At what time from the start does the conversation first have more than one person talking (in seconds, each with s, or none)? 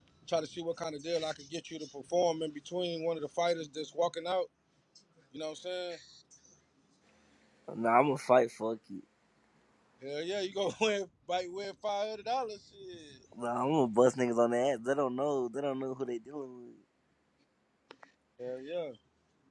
none